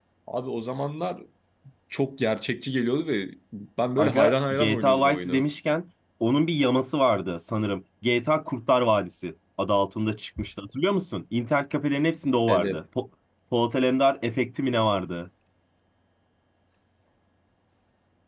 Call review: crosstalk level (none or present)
present